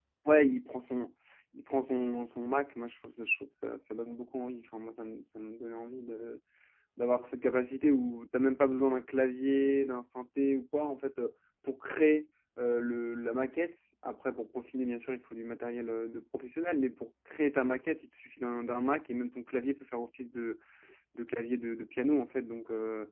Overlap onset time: none

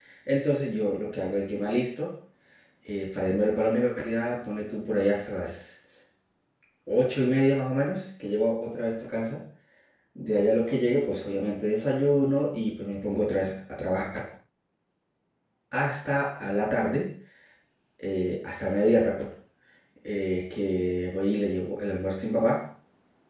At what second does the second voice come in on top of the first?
none

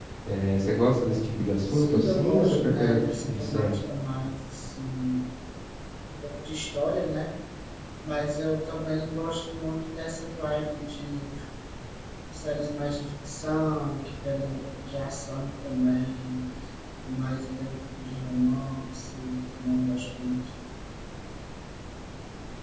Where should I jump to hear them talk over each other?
1.7 s

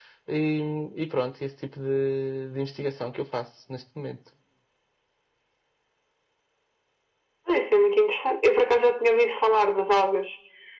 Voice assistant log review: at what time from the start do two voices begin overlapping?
none

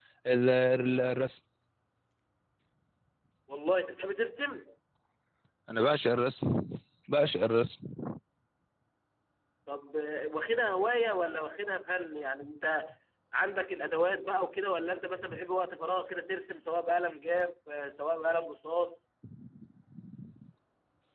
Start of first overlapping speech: none

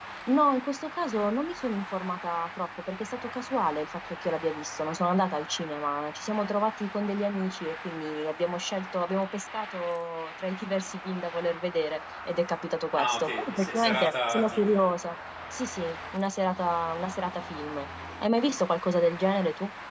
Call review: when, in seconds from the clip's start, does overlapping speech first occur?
12.9 s

